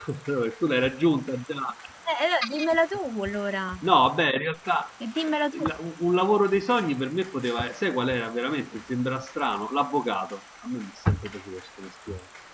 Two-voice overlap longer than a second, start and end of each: none

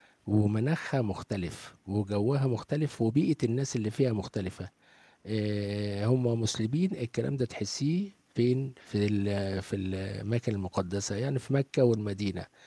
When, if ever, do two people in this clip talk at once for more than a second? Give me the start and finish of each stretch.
none

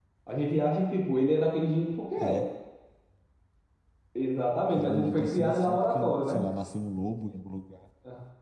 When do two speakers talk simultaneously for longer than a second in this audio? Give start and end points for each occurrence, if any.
4.7-6.4

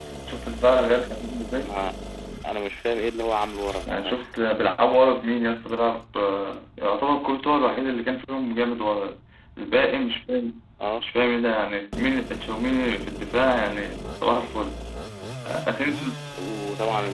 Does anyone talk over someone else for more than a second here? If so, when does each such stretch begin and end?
none

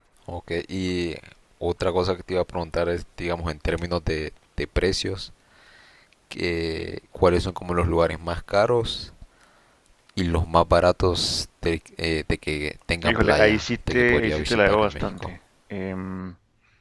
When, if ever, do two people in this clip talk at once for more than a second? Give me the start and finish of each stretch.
13.0-15.3

